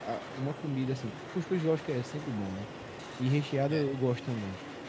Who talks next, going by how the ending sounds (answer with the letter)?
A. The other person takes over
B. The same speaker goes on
B